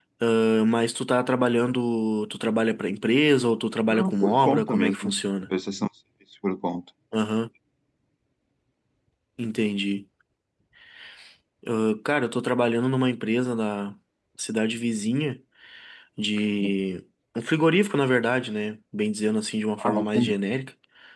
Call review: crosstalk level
present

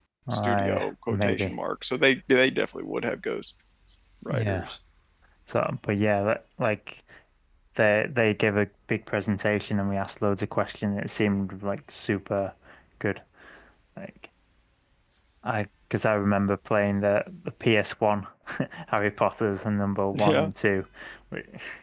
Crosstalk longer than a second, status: present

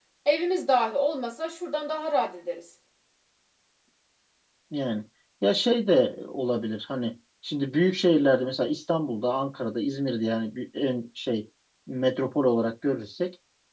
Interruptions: none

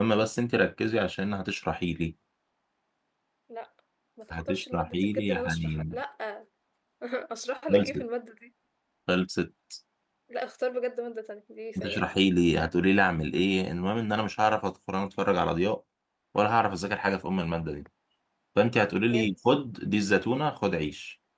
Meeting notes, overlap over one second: present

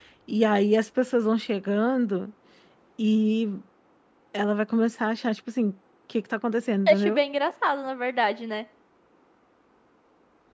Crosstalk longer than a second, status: none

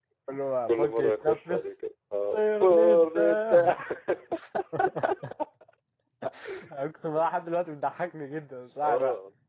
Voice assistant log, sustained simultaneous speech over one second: present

